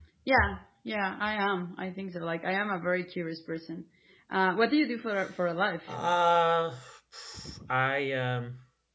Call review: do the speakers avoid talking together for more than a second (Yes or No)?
Yes